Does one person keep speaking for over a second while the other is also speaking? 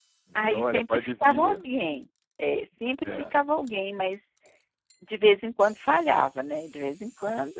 Yes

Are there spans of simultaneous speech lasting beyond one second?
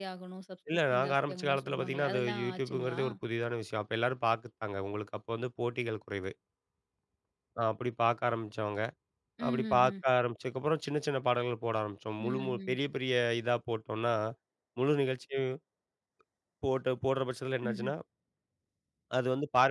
Yes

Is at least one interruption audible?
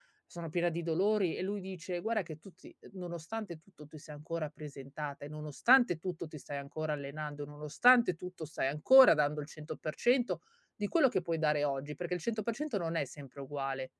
No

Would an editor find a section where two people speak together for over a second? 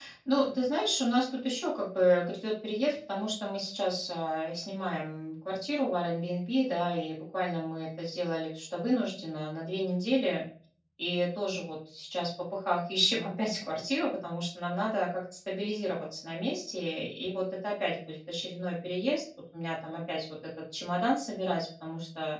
No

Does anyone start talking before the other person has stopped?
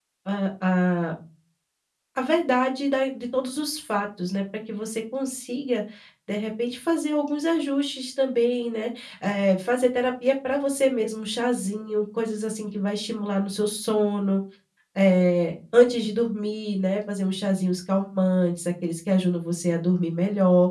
No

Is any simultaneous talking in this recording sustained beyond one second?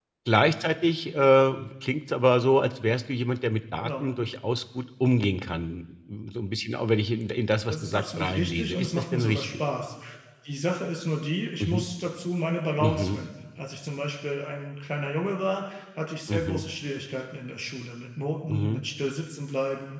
Yes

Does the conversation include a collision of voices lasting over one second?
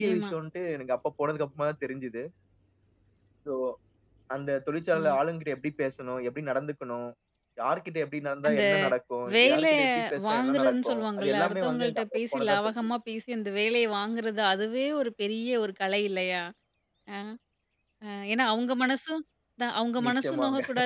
Yes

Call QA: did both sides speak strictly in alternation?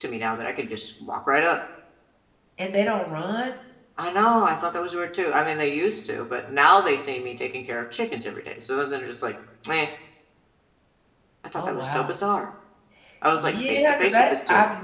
No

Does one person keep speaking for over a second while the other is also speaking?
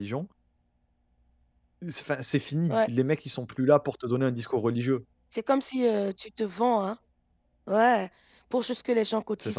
No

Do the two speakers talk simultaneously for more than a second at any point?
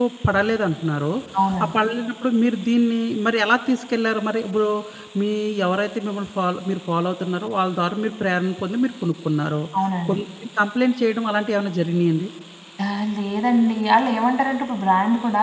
No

